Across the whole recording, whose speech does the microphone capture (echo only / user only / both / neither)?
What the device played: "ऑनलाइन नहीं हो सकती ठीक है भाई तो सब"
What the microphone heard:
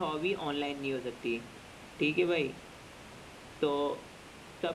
echo only